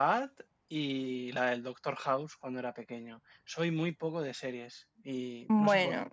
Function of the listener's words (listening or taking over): listening